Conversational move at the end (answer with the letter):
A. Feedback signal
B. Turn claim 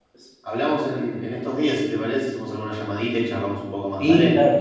B